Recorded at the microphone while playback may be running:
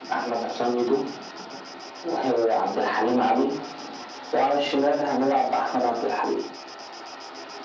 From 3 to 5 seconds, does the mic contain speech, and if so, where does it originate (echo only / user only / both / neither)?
echo only